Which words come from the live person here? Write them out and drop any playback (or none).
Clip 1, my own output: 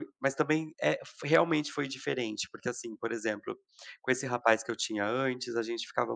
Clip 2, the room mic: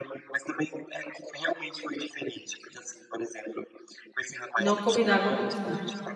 Não combinava com você.